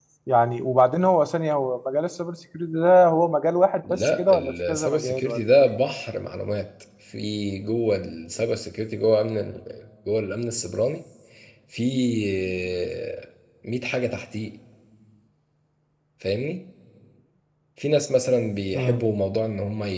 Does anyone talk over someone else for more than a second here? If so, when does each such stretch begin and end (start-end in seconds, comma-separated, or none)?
3.9-5.4